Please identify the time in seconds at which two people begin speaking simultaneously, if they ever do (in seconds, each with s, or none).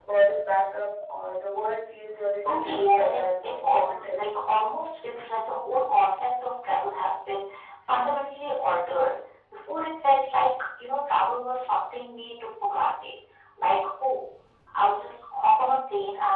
2.5 s